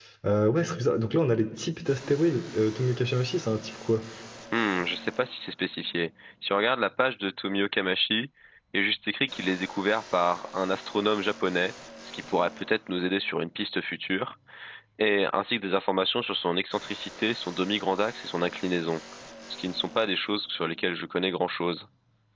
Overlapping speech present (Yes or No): No